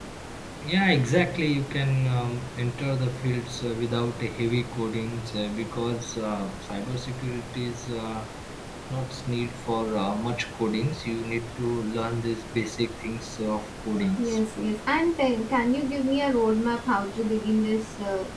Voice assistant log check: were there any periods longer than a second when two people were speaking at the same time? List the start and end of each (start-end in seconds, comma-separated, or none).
none